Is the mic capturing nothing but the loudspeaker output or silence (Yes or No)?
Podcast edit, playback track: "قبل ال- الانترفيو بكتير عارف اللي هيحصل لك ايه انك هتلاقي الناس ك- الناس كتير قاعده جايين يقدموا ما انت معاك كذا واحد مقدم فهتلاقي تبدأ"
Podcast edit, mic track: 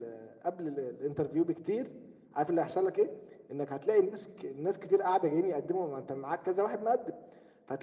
Yes